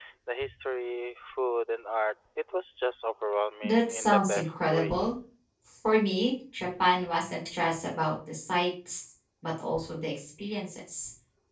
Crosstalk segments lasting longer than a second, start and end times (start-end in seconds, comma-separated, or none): 3.6-5.0